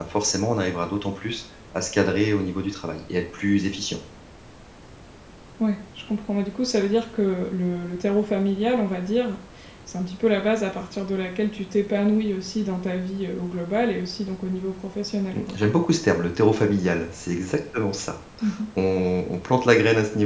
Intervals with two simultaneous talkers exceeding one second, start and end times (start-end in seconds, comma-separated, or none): none